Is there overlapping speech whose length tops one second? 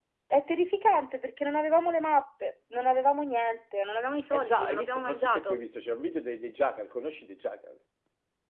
Yes, from 4.3 s

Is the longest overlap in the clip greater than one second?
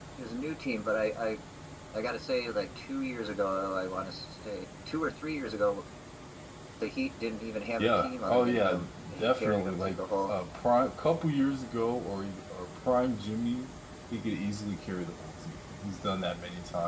Yes, from 7.8 s

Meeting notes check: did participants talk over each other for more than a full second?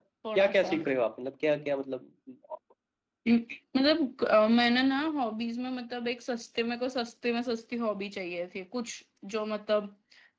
No

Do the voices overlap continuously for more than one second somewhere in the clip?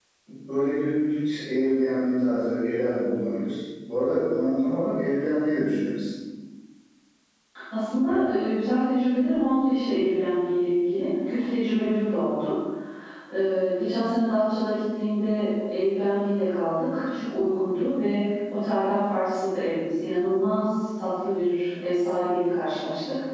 No

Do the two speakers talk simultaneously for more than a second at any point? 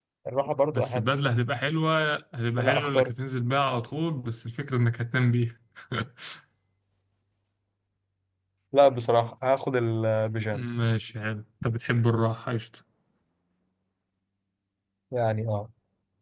No

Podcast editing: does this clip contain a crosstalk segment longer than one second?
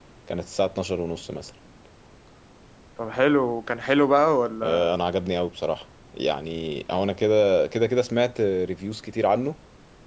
No

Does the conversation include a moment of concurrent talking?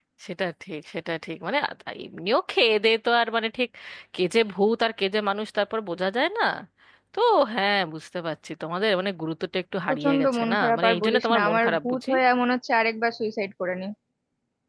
Yes, from 9.9 s

